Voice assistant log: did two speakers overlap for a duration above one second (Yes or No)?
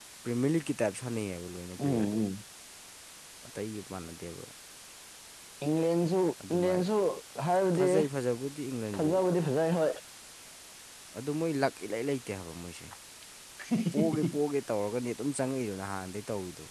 No